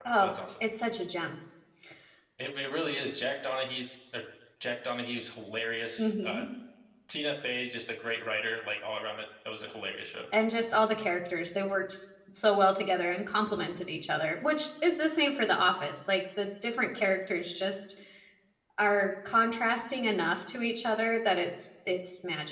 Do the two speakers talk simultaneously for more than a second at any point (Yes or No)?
No